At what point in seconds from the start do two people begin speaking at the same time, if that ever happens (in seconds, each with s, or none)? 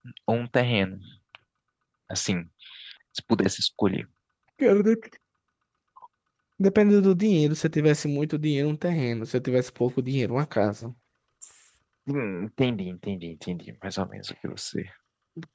none